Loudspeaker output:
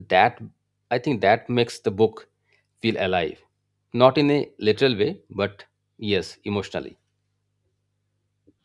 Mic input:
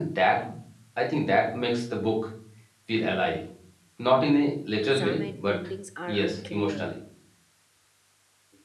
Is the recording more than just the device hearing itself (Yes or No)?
Yes